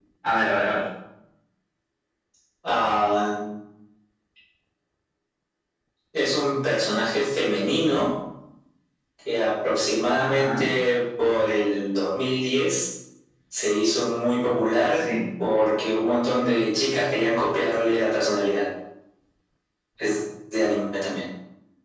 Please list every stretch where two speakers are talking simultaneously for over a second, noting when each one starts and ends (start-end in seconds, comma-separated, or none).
none